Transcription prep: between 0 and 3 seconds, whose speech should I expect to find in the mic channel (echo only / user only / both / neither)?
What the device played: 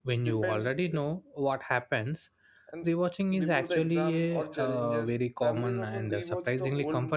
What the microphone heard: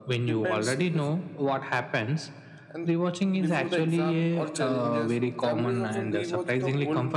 echo only